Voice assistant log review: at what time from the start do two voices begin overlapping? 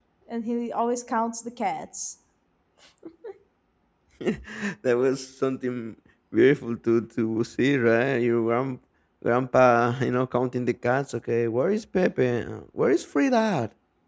none

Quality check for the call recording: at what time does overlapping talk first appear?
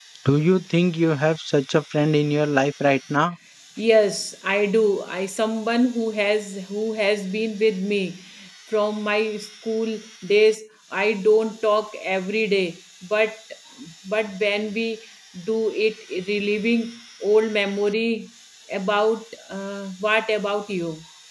none

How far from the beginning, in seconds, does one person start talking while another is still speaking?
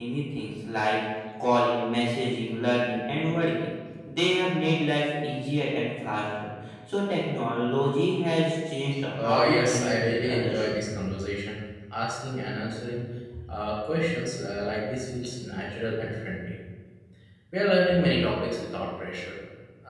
9.2 s

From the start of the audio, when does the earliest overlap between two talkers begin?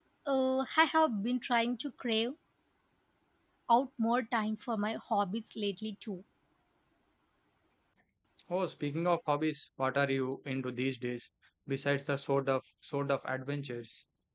none

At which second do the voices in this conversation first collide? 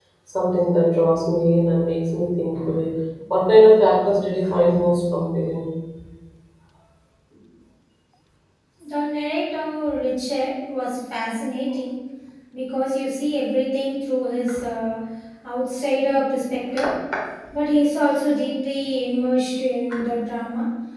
none

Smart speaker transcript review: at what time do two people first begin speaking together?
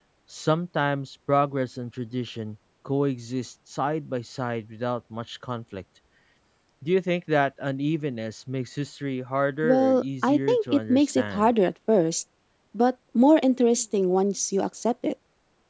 9.6 s

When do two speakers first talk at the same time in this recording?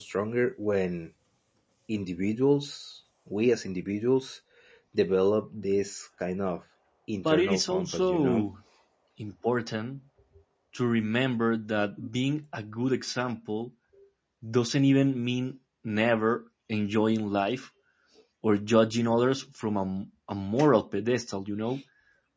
7.2 s

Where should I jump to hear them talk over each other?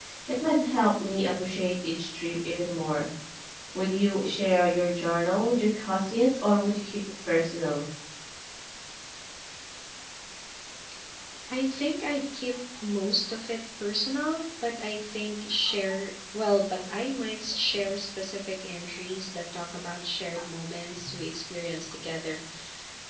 none

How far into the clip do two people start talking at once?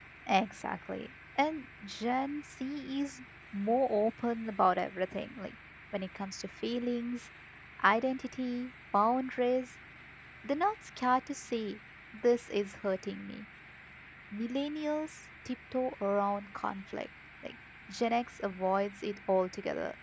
none

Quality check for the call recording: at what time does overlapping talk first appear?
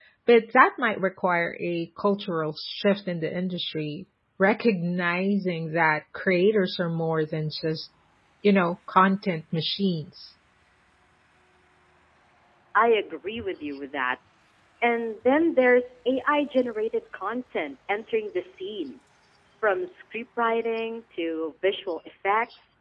none

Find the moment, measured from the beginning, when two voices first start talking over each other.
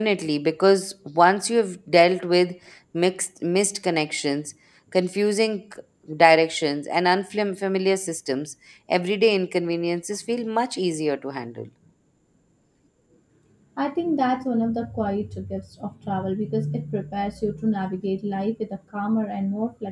none

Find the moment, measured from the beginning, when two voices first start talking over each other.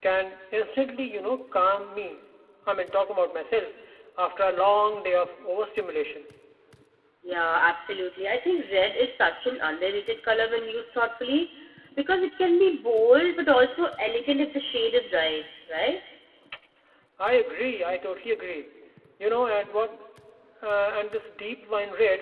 none

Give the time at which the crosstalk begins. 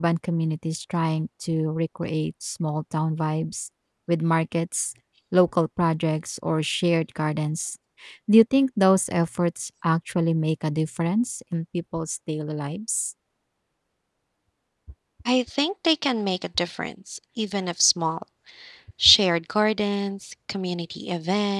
none

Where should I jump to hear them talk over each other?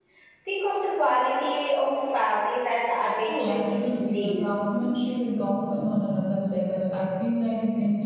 3.3 s

